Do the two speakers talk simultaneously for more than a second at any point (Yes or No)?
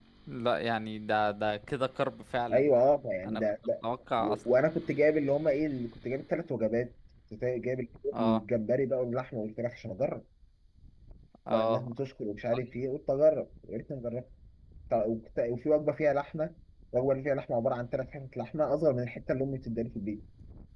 No